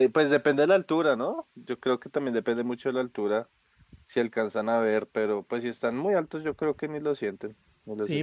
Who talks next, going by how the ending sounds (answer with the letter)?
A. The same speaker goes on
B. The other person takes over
B